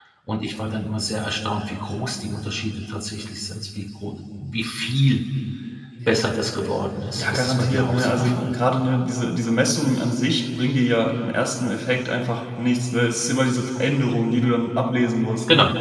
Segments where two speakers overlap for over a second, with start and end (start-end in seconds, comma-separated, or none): 7.2-8.5